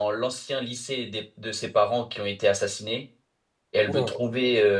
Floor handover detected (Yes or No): No